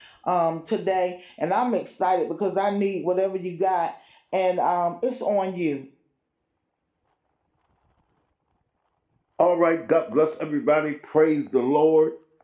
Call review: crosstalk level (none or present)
none